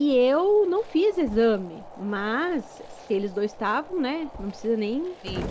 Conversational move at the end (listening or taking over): listening